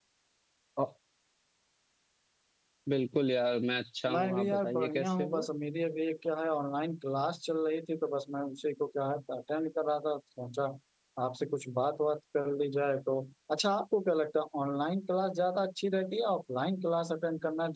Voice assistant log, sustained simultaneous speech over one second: present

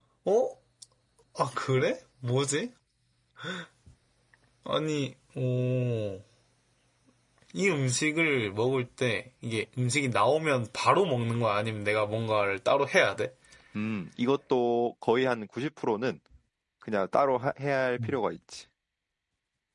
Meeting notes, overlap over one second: none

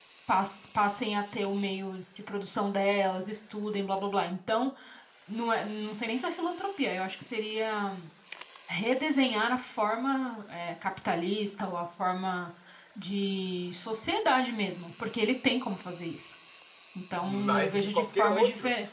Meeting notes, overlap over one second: present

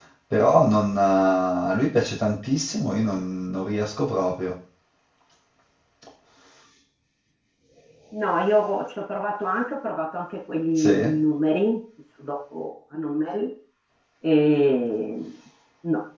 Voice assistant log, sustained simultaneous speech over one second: none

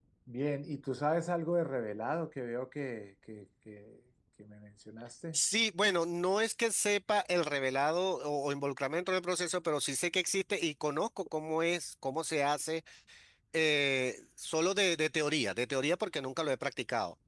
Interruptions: none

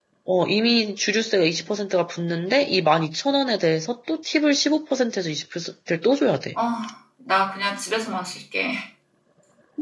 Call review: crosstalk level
none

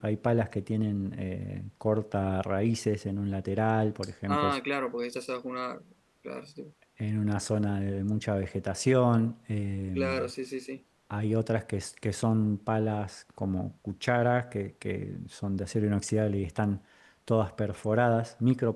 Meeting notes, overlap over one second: none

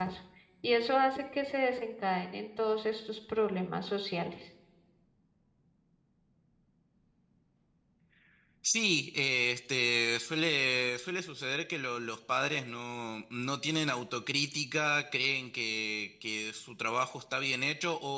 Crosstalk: none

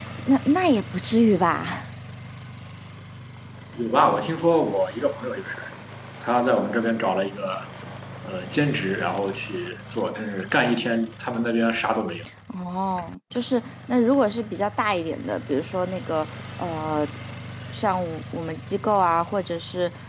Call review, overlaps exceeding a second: none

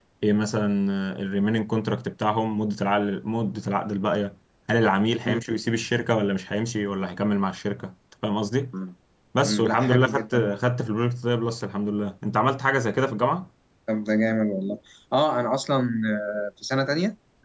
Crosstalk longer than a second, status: present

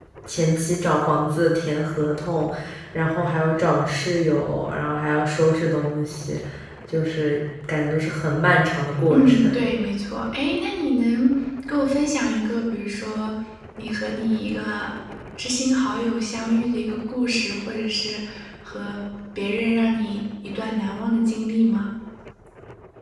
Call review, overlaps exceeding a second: none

